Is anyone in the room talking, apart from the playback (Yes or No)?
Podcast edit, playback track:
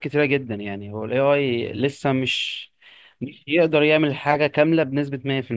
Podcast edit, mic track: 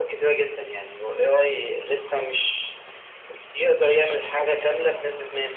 No